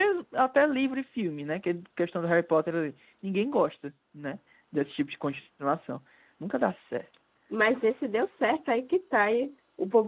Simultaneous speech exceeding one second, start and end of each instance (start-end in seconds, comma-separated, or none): none